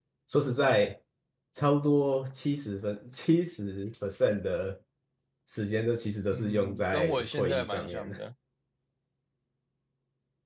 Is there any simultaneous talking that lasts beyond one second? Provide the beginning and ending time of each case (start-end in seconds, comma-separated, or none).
6.3-8.1